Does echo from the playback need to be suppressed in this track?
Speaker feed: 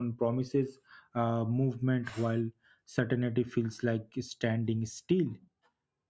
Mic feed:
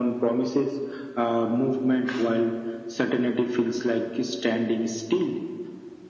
Yes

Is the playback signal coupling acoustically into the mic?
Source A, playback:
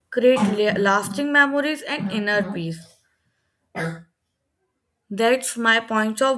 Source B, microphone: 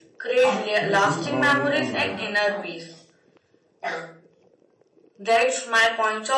Yes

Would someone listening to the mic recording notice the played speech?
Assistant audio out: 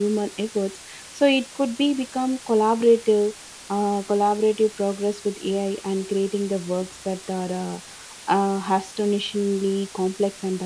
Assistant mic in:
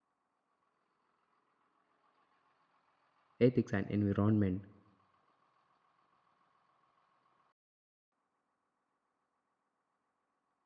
No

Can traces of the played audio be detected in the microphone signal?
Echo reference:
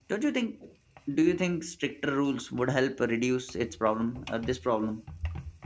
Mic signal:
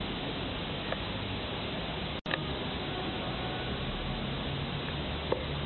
No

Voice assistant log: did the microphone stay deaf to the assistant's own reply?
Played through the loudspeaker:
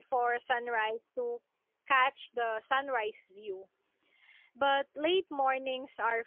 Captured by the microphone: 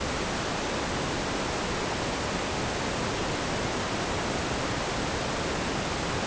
Yes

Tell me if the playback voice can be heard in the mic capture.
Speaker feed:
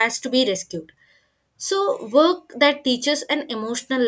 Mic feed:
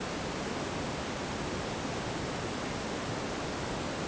No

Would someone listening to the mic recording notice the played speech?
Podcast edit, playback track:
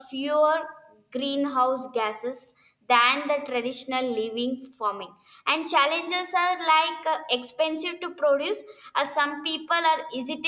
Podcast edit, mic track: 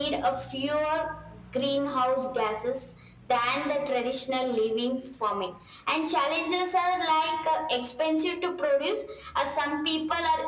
Yes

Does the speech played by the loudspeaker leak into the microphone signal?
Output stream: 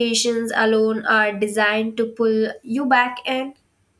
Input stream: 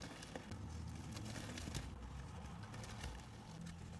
No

